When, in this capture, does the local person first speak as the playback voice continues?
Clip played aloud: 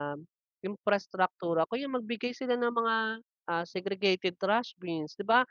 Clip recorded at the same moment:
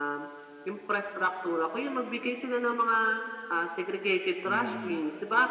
4.4 s

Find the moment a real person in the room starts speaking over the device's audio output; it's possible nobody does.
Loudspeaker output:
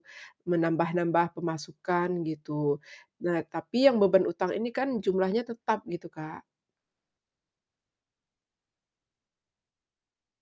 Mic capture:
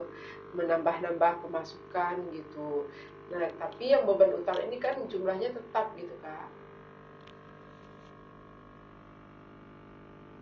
none

